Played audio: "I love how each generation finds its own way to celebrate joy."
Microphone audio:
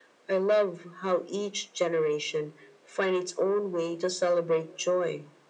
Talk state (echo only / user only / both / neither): echo only